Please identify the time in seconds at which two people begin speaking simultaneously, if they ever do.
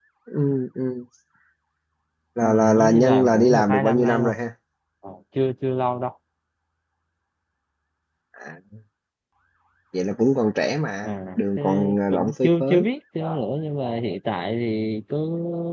2 s

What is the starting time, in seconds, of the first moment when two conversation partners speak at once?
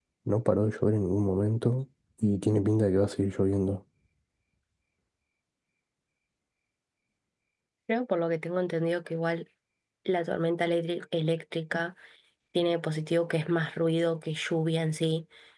none

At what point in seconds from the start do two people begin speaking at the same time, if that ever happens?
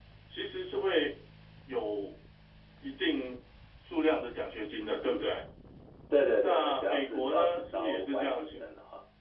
6 s

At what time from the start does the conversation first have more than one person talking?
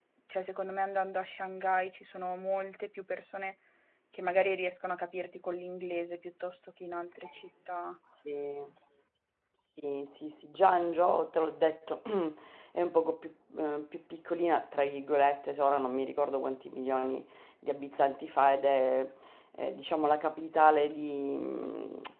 none

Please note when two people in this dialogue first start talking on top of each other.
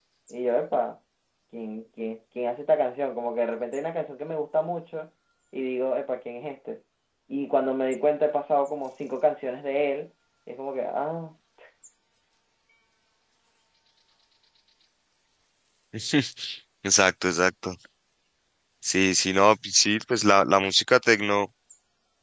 none

